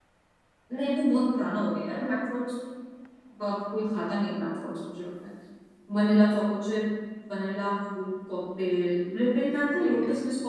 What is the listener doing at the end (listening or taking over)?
listening